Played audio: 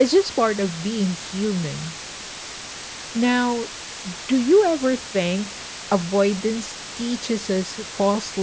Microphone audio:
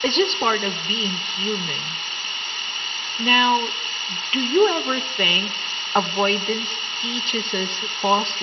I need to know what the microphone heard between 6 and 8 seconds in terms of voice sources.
echo only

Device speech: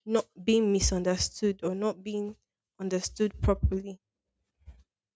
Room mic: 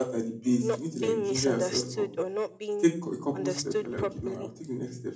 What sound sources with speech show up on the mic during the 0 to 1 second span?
both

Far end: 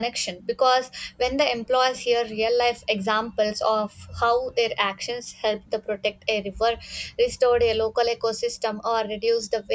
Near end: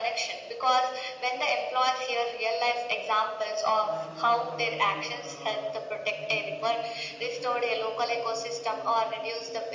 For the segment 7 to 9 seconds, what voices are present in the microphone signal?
both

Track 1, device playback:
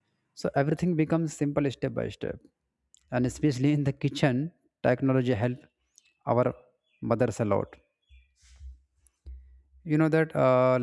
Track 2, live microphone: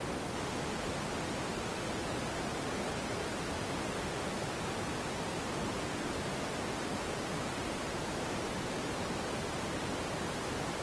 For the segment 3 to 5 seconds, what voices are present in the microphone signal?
neither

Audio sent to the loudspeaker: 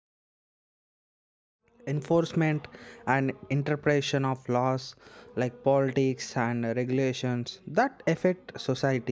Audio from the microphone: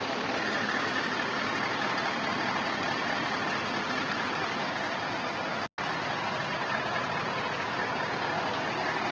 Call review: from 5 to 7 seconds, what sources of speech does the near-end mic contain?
neither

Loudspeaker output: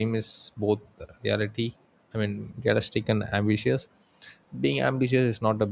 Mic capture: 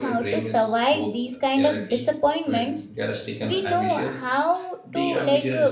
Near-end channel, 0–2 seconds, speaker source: both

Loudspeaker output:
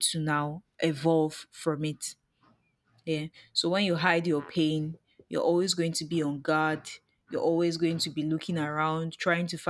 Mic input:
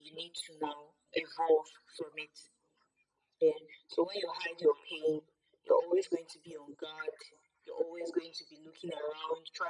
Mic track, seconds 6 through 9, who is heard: echo only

